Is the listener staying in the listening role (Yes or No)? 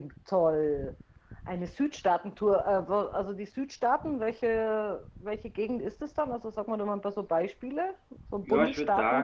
No